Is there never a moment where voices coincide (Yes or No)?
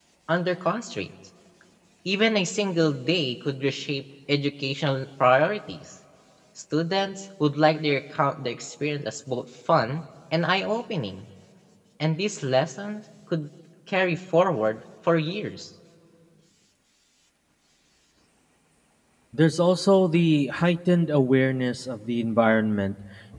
Yes